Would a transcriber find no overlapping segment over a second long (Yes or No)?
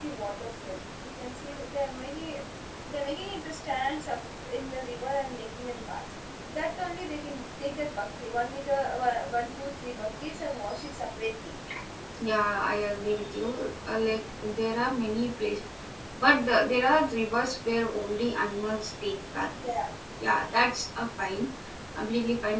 Yes